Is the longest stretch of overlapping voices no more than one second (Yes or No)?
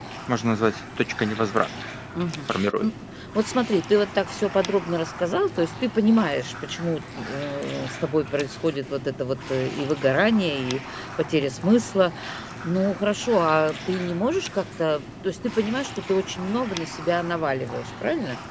Yes